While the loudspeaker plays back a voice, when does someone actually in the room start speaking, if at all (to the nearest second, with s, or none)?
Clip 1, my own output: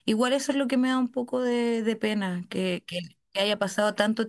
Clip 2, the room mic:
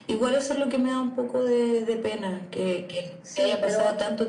3 s